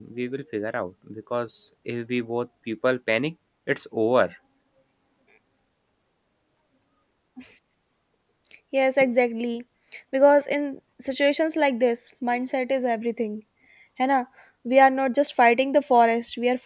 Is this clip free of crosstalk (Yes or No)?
Yes